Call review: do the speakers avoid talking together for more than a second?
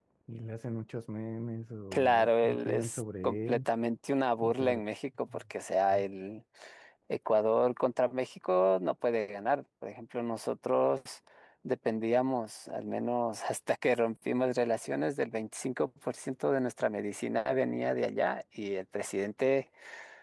No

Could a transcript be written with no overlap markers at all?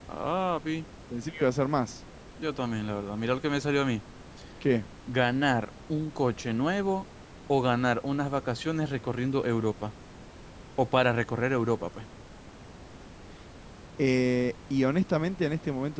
Yes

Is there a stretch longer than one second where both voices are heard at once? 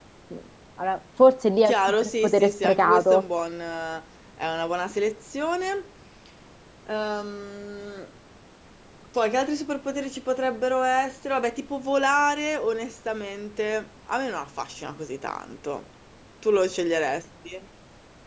Yes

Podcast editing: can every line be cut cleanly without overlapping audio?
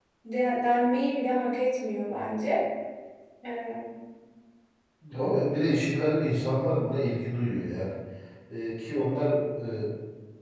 Yes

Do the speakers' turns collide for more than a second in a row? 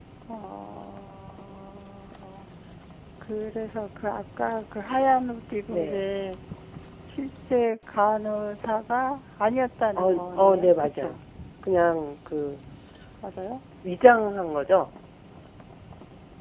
Yes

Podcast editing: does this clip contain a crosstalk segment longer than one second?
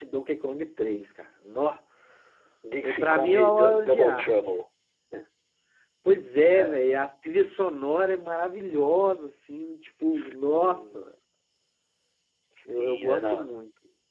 Yes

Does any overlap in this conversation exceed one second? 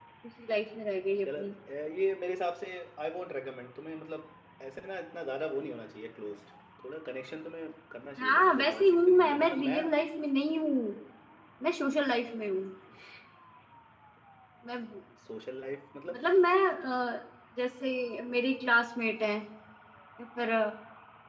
Yes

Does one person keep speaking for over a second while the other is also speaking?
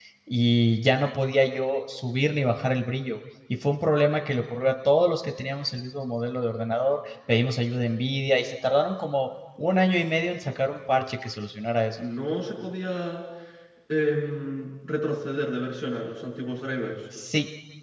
No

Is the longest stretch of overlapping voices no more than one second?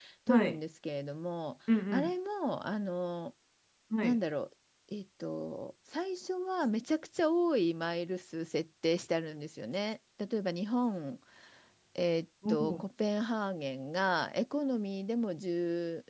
Yes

